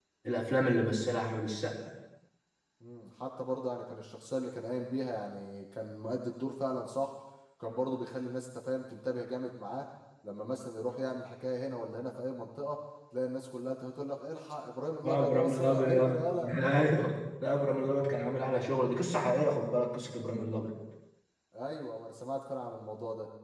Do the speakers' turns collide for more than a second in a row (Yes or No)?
Yes